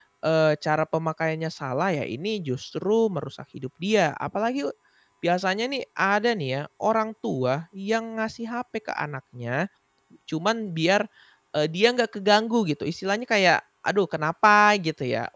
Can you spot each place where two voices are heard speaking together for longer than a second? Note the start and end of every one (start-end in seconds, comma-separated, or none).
none